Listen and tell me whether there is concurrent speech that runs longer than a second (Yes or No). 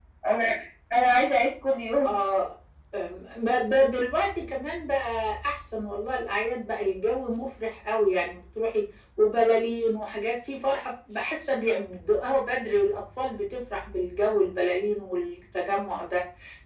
No